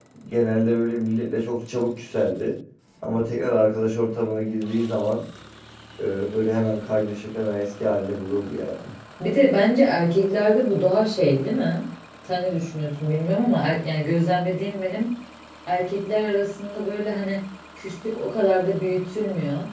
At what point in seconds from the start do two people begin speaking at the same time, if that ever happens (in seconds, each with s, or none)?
none